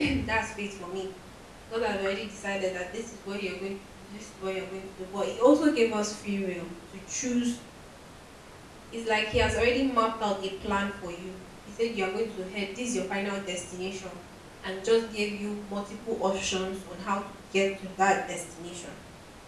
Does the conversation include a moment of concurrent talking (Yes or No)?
No